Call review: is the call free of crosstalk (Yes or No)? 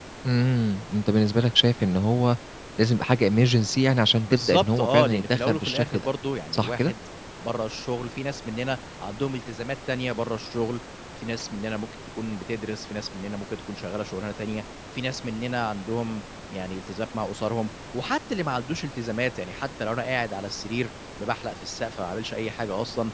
No